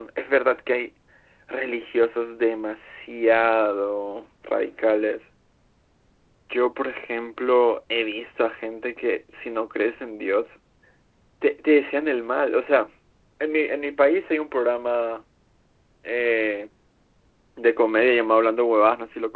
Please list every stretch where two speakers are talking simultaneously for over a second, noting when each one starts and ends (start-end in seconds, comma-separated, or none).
none